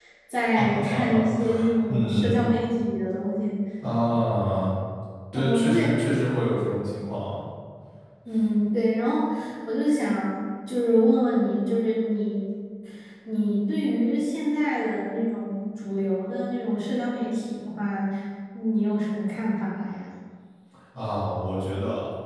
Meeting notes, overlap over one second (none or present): present